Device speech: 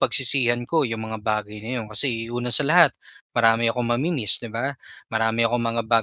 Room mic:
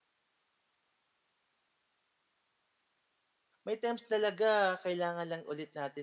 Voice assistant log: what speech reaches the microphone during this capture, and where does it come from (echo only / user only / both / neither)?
user only